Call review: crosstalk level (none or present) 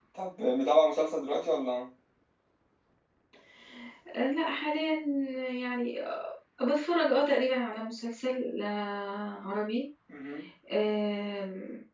none